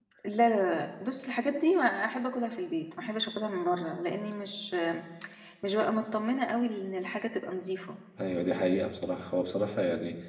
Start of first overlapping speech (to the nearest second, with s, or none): none